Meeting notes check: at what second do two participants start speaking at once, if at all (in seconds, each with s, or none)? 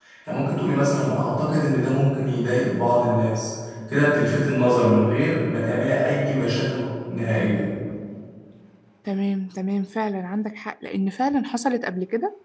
none